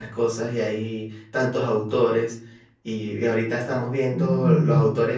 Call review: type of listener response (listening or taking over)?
listening